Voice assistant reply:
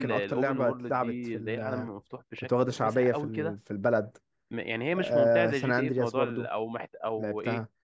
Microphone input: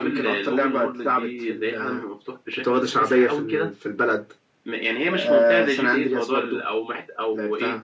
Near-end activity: none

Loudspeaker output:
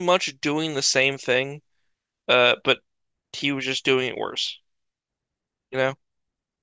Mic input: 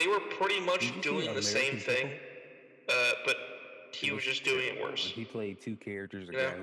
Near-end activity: present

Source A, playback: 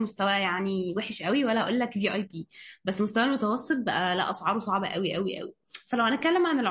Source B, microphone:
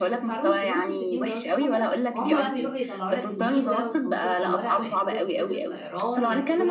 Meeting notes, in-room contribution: present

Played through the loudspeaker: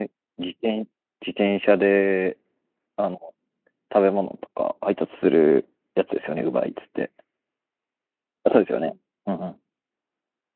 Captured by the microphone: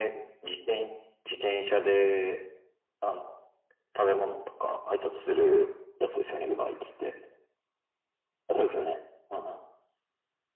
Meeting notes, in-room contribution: none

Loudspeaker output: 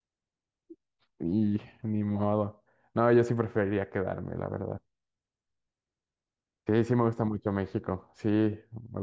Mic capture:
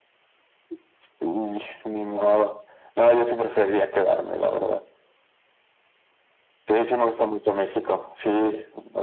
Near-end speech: none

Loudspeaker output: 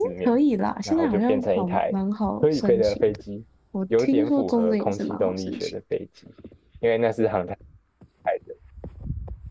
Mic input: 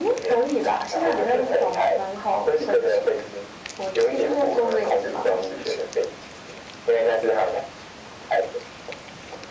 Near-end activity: none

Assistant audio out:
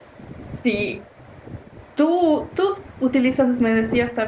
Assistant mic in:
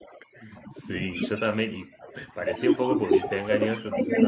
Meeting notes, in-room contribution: present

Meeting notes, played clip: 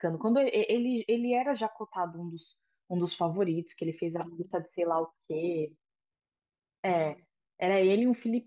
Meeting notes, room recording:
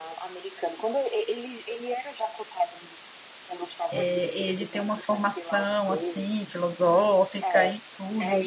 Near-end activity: present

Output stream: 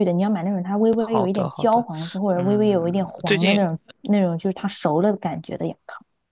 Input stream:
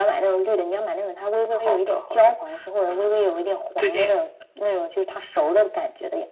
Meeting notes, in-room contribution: none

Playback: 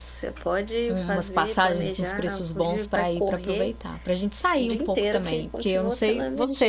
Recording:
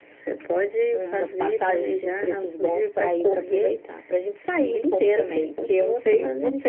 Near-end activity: none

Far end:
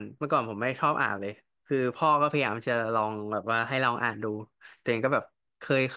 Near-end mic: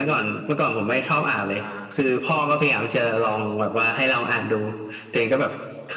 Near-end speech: present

